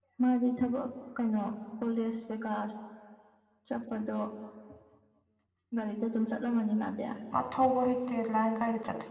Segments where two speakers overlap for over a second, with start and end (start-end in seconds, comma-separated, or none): none